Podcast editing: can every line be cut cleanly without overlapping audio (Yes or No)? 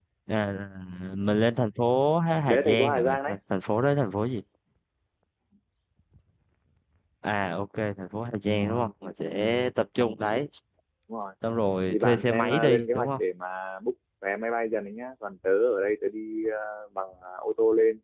No